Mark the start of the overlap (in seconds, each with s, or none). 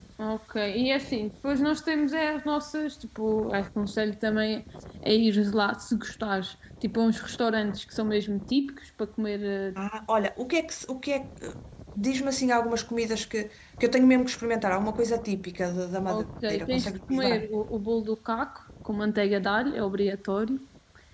16.1 s